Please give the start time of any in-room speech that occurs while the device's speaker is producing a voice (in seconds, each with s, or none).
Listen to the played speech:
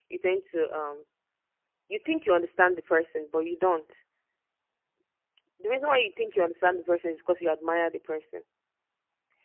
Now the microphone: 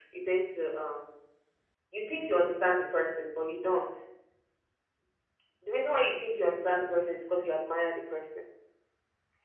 none